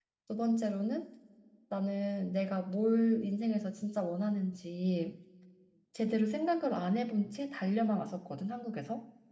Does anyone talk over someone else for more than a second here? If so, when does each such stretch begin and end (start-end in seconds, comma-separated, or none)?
none